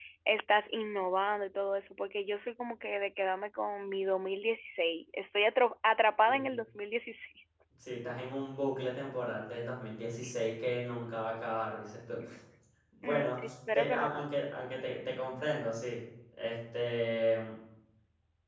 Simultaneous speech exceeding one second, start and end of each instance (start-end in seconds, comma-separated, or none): 13.0-14.3